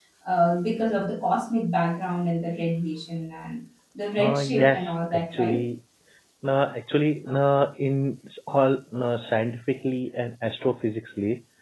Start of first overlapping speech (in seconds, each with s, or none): 4.2 s